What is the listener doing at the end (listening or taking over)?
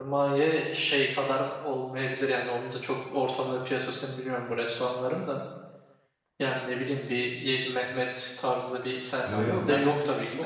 taking over